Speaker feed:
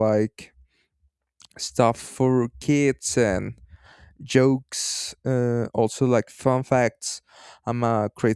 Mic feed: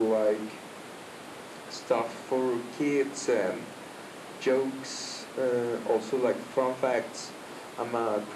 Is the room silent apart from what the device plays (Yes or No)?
Yes